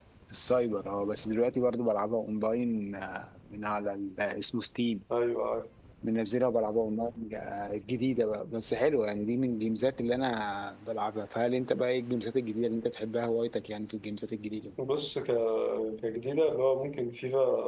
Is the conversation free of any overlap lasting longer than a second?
Yes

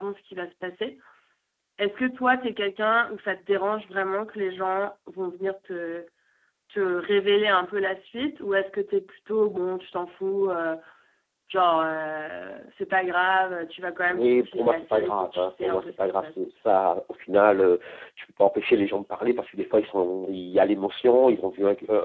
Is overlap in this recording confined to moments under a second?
No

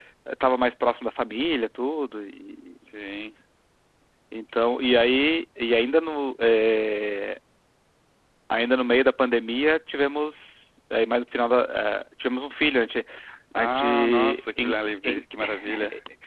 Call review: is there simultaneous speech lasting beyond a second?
Yes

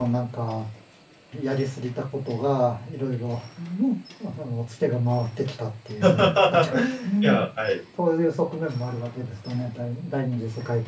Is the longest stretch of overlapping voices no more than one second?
No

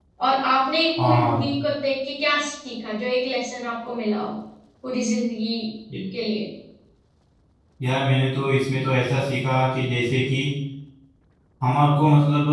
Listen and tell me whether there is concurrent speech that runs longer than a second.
No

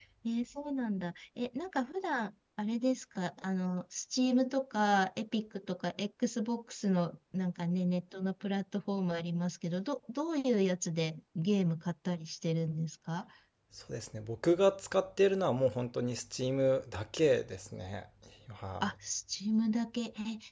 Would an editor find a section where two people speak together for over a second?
No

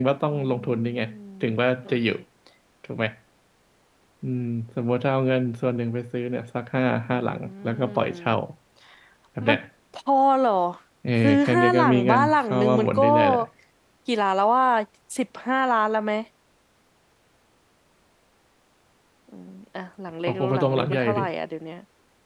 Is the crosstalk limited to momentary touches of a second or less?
No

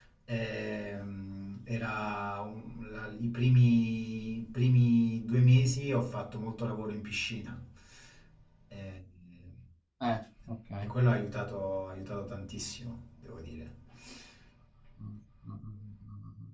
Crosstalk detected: No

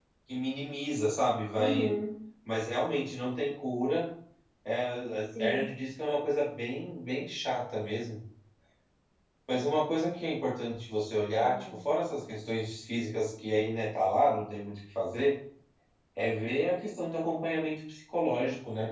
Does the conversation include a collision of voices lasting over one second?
No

